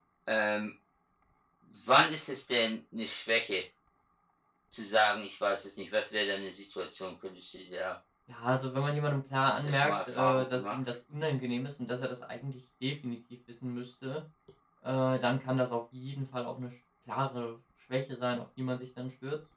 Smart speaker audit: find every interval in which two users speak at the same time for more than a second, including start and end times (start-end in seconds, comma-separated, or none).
9.5-10.8